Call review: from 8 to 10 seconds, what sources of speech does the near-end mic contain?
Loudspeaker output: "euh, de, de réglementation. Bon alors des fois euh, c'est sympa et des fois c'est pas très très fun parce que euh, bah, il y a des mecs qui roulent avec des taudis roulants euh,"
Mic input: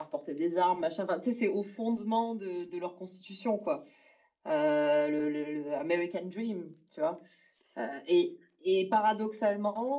user only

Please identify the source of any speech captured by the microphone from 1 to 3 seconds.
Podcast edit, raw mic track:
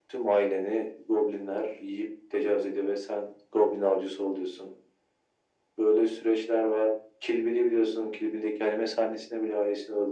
echo only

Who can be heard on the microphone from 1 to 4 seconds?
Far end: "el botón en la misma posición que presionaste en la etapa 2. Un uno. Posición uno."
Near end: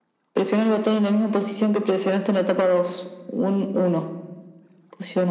echo only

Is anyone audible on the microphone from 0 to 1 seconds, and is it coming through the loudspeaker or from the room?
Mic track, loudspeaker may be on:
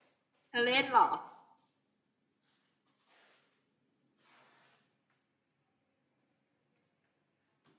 user only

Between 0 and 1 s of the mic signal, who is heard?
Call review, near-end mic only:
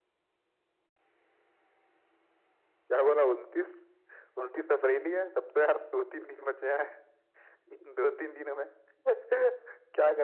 neither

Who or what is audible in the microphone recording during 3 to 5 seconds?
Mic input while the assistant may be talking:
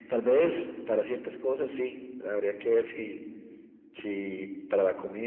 echo only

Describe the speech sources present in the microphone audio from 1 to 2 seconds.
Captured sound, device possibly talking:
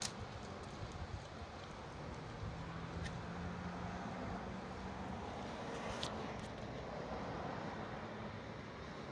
neither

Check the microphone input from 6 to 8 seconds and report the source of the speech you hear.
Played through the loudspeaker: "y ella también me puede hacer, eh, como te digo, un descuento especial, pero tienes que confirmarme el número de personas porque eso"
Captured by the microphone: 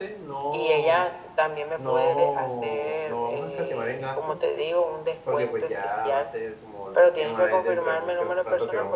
both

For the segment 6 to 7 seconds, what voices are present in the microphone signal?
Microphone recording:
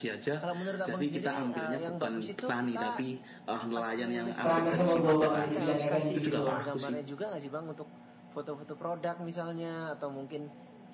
both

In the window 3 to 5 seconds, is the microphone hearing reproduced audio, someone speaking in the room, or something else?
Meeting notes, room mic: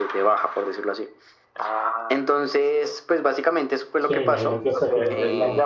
both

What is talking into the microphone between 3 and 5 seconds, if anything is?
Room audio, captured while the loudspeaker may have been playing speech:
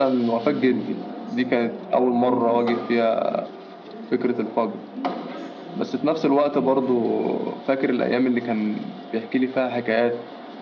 both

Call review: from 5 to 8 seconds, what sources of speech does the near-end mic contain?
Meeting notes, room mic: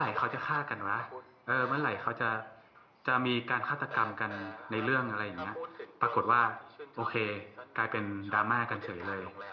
both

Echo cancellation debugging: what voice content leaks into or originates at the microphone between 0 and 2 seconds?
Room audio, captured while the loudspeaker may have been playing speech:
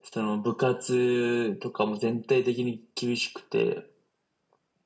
echo only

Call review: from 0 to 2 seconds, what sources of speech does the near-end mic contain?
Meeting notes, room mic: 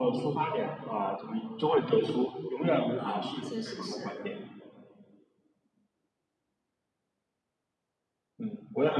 echo only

